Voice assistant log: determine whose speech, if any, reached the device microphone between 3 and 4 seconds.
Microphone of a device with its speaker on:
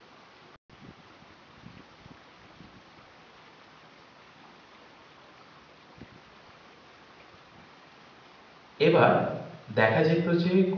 neither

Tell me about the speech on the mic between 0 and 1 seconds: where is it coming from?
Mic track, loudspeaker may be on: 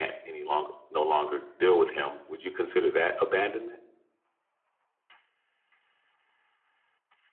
echo only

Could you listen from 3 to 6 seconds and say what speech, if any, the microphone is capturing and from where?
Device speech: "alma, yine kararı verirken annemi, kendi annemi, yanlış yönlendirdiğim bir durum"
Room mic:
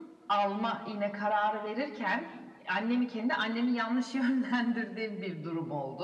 echo only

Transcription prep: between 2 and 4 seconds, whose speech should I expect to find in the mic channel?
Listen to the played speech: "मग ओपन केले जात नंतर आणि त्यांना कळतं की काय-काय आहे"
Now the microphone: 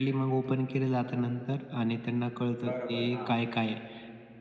both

